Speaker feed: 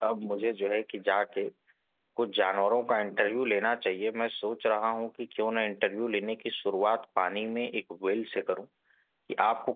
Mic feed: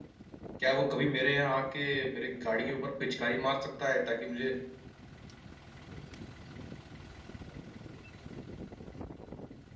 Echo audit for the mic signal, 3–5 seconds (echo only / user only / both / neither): user only